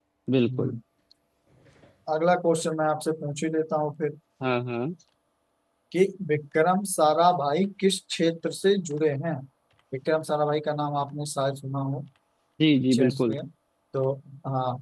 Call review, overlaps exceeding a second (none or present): none